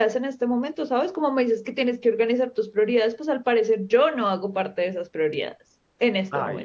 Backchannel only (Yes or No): No